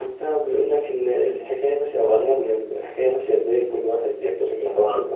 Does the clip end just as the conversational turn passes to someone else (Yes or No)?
No